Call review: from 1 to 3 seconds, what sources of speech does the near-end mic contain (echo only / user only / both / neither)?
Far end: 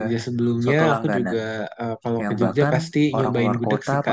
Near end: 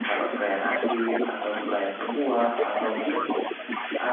both